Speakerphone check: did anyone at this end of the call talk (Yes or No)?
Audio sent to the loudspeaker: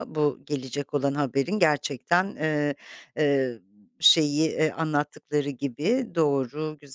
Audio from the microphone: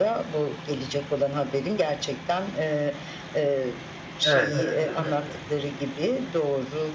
Yes